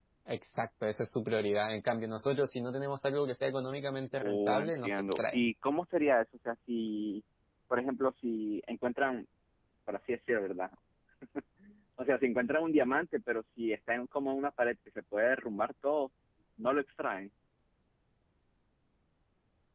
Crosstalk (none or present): present